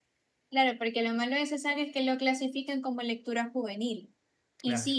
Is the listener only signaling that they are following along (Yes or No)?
Yes